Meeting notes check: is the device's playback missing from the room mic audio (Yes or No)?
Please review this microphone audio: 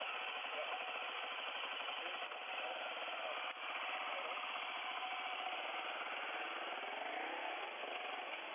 Yes